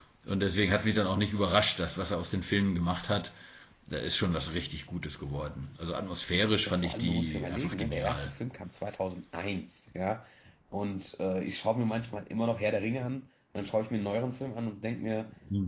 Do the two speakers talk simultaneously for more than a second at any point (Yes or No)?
Yes